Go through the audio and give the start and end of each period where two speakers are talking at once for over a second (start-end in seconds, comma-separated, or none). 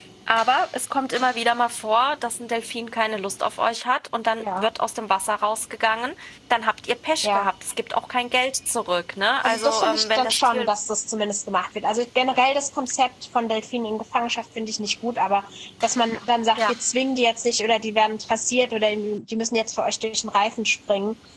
9.4-10.7